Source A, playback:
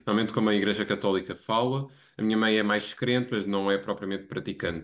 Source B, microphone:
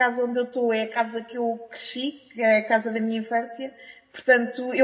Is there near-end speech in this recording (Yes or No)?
Yes